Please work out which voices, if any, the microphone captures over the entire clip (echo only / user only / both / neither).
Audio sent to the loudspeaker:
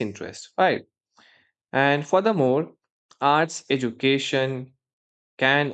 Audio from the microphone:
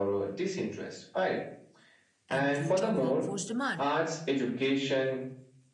both